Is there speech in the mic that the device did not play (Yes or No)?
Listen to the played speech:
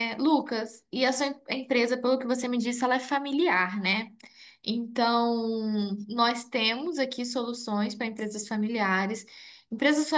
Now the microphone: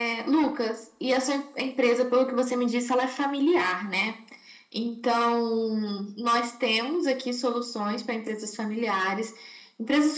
No